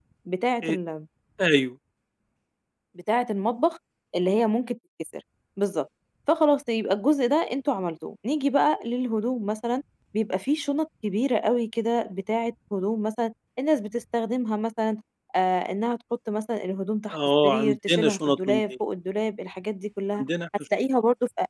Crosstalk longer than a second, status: present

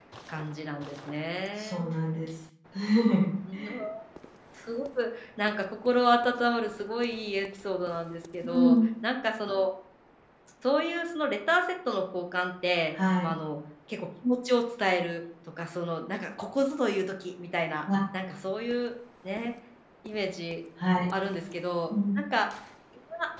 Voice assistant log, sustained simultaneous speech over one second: none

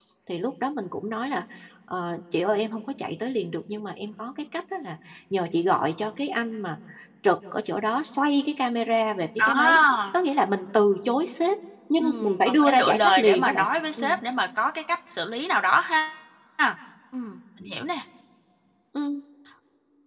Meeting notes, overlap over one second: present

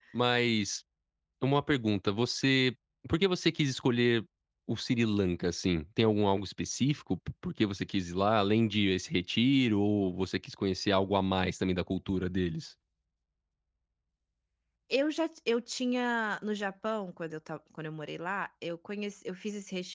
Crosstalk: none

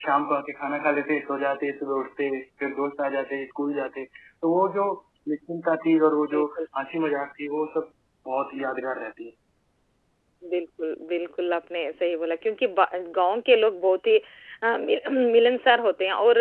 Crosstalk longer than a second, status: none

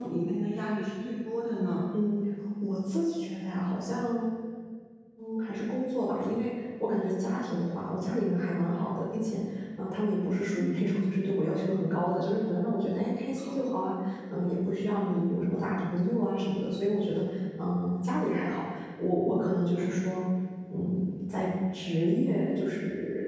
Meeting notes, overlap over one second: none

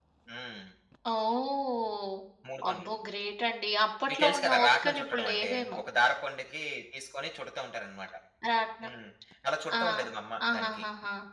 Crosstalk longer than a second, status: present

